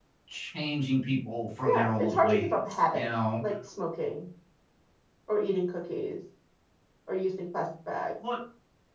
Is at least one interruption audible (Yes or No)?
Yes